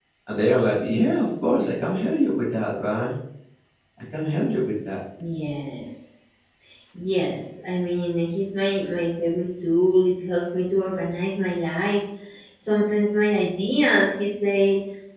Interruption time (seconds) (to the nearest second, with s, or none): none